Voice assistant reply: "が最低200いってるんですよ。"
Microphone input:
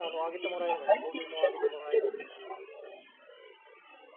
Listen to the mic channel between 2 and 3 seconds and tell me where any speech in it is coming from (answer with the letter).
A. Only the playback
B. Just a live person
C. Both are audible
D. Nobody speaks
C